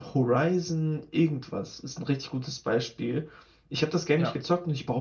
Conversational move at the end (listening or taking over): listening